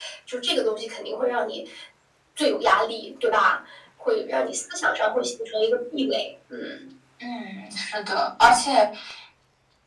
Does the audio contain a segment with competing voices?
No

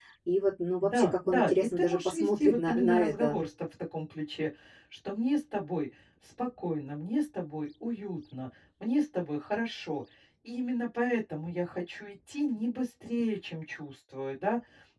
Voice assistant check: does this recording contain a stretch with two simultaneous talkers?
Yes, from 0.8 s

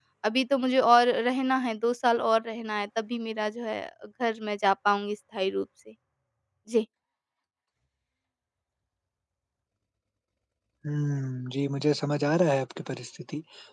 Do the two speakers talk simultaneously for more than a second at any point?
No

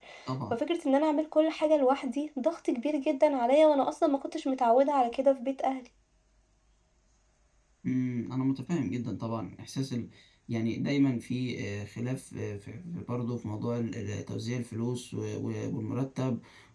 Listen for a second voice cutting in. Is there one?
No

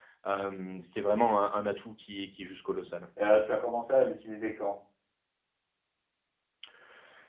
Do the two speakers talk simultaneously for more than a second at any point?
No

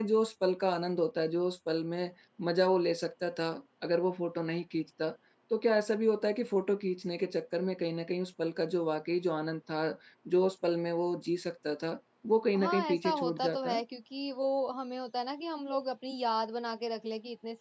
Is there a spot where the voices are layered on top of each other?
Yes, from 12.5 s

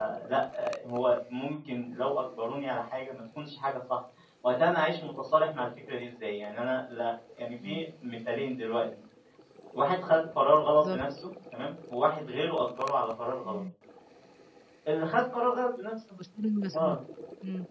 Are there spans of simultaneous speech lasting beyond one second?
No

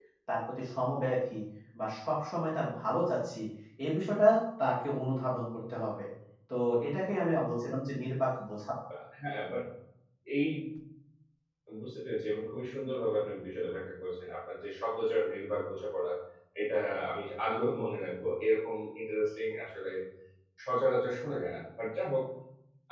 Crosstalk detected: No

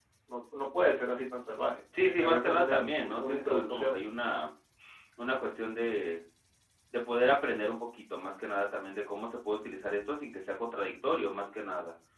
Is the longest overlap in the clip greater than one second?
Yes, from 1.9 s

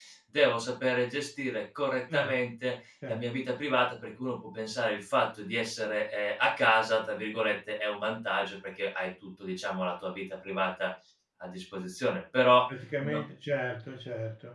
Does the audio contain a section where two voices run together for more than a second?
No

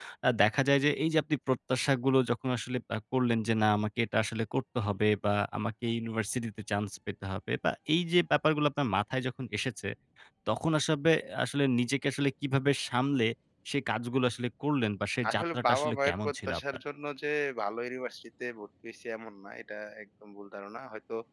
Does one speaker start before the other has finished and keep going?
Yes, from 15.2 s

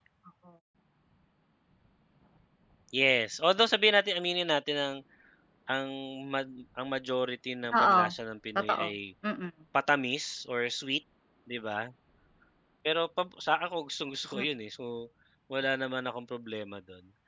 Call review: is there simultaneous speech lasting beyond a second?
No

